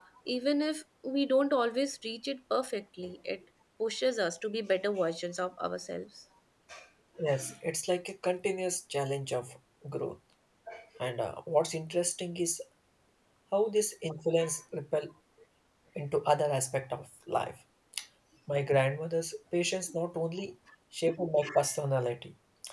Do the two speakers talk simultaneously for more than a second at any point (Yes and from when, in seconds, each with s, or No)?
No